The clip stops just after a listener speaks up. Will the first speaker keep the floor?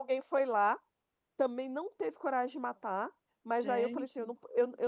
Yes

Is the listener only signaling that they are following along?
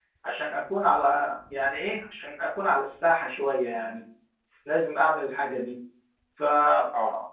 Yes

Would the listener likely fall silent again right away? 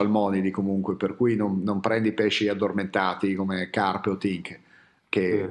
Yes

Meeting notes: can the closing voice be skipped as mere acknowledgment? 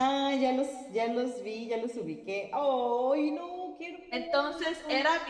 No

